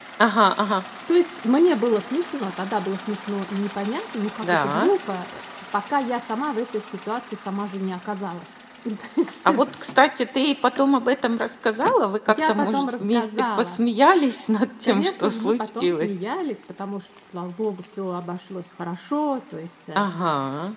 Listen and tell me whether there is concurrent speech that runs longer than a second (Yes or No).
Yes